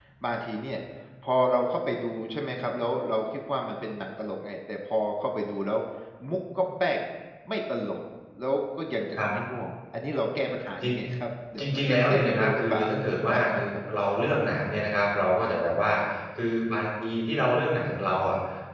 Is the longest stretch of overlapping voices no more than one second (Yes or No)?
No